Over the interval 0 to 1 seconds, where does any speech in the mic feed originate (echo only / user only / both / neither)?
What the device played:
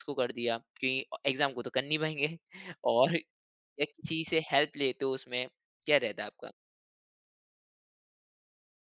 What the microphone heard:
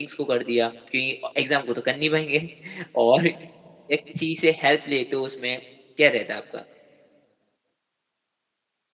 echo only